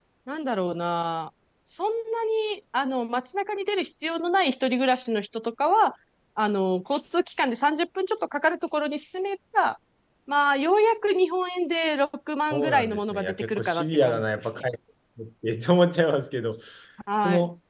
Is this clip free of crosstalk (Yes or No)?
No